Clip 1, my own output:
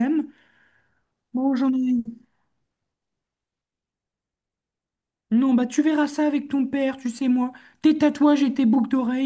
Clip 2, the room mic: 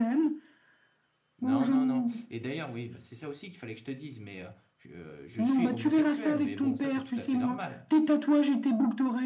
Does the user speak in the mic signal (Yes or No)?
Yes